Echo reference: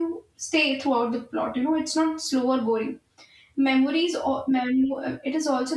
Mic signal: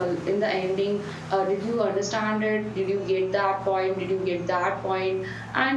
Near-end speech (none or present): present